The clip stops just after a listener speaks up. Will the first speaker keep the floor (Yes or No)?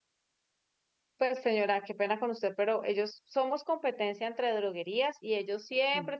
Yes